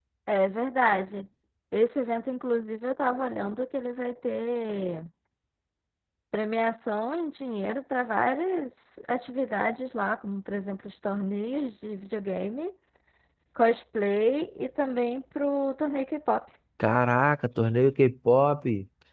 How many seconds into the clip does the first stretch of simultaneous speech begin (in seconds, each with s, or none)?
none